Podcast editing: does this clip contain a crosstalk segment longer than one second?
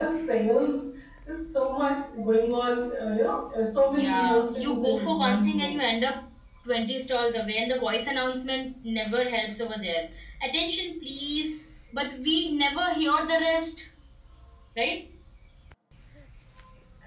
Yes, from 3.8 s

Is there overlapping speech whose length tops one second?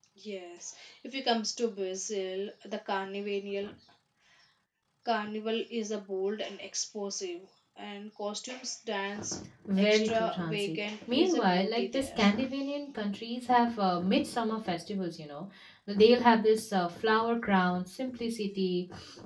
Yes, from 9.8 s

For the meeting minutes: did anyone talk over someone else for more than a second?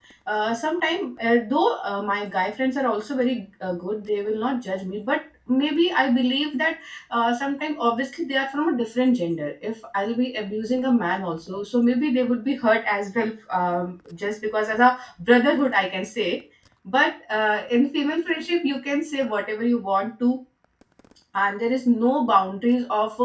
No

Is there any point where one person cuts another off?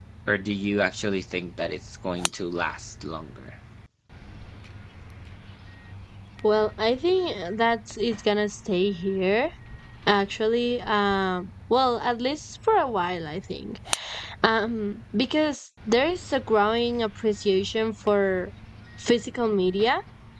No

